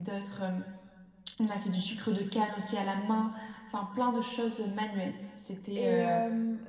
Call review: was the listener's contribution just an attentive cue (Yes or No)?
No